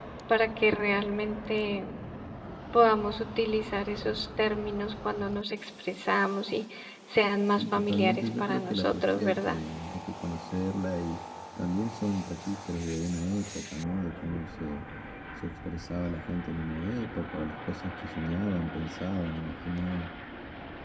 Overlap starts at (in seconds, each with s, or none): 7.6 s